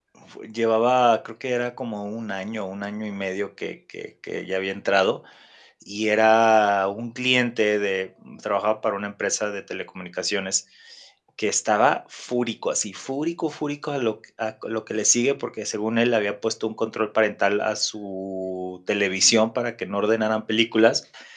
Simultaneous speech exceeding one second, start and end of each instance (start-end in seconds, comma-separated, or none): none